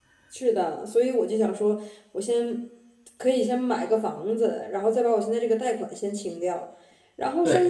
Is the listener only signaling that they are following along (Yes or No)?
Yes